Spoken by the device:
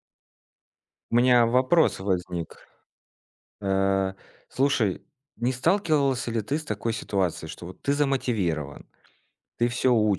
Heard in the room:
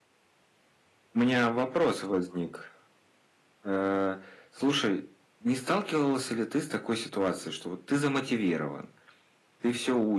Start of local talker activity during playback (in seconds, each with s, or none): none